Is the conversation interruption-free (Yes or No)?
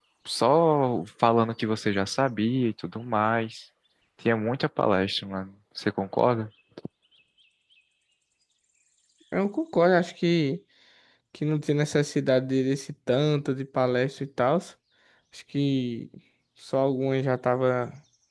Yes